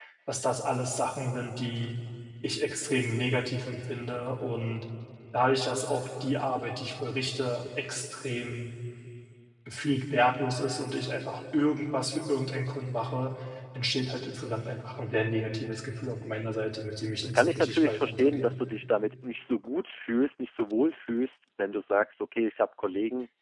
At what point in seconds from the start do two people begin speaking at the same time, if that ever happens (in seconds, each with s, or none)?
17.2 s